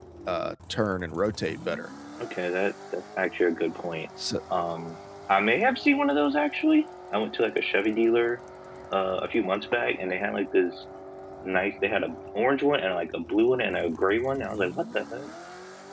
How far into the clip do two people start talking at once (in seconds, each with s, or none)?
none